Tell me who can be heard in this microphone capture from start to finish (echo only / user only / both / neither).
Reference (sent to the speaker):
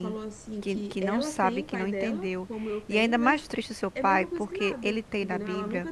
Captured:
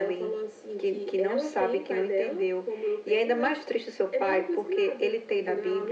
echo only